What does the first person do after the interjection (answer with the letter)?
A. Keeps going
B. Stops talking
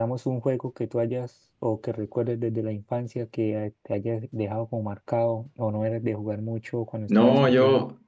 B